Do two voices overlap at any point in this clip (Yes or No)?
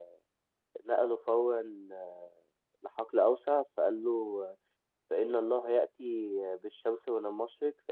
No